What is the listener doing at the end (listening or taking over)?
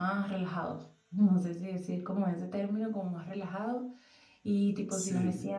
listening